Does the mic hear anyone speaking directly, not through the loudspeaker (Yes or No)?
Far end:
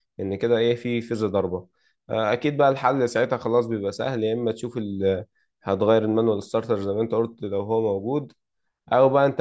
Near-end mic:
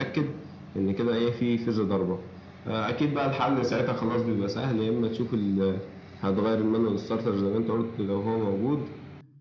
No